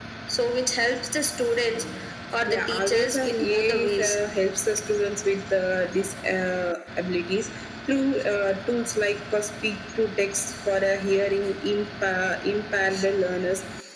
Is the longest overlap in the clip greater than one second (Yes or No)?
Yes